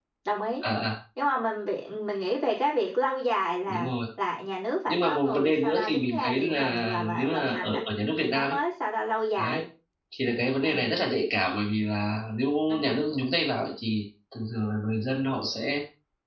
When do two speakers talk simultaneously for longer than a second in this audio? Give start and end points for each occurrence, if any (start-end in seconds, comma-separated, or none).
4.9-7.8